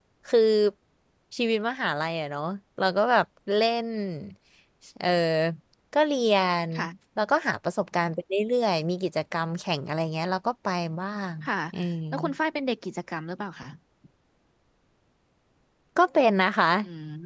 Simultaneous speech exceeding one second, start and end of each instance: none

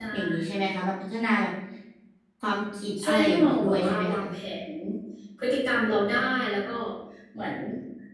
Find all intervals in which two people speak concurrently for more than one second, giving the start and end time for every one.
3.0-4.2

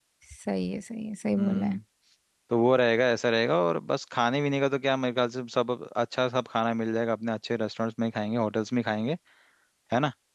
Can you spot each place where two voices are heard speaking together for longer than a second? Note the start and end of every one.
none

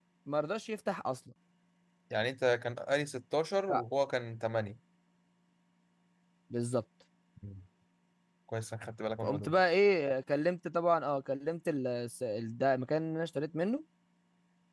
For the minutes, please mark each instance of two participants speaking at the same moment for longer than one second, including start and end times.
none

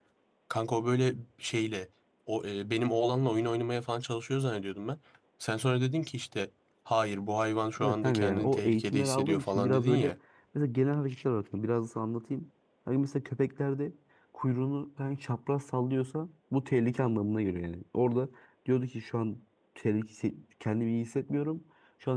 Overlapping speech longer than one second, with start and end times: 7.8-10.1

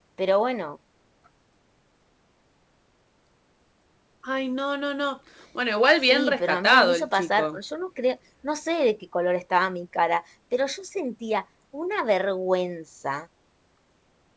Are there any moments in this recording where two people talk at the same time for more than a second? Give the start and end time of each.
6.1-7.6

